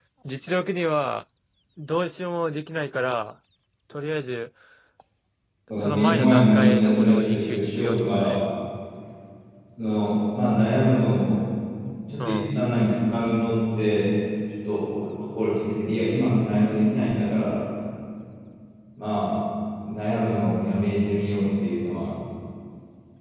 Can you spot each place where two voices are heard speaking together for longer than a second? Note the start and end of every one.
5.8-8.4

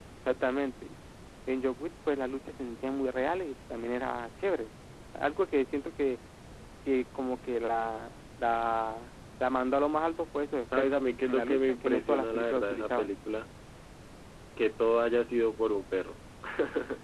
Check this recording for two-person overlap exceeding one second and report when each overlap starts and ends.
10.8-13.1

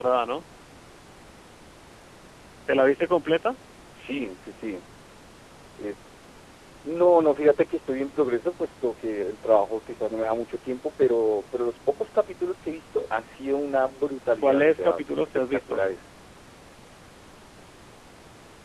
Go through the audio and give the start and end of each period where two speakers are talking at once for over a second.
14.4-15.8

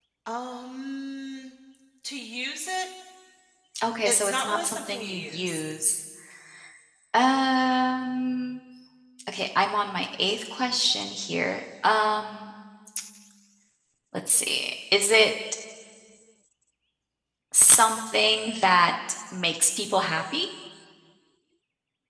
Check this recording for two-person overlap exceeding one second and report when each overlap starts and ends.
4.0-5.6

